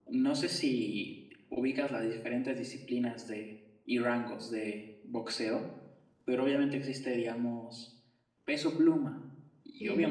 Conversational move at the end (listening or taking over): listening